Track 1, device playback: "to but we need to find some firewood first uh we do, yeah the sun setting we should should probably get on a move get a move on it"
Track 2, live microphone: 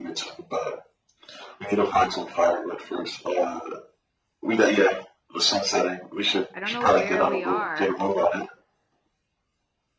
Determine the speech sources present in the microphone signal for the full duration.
both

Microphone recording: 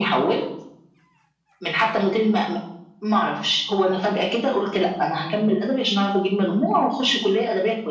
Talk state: echo only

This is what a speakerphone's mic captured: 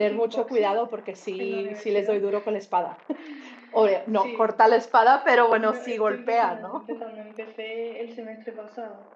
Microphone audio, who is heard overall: both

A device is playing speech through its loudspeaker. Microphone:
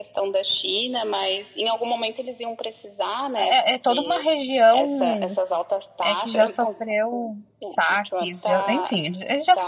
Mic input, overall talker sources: both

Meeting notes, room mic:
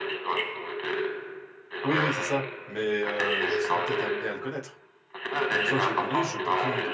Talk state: both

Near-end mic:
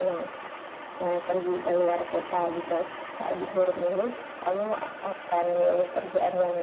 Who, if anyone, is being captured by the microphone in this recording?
echo only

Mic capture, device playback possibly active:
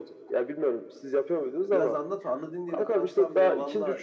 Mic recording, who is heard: both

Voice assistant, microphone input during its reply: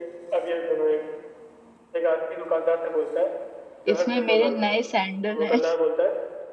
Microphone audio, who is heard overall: both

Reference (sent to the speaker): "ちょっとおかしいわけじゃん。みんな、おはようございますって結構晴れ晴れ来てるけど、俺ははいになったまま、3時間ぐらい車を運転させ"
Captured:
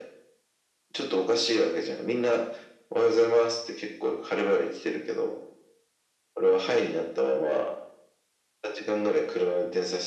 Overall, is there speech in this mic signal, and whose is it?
echo only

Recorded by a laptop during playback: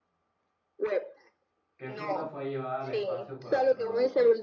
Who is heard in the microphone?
both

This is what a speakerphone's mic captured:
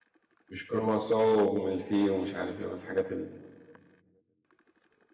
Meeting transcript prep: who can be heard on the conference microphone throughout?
user only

